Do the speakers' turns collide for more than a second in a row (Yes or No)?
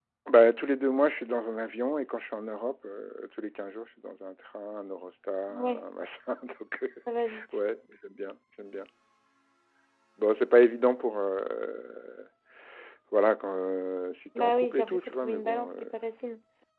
Yes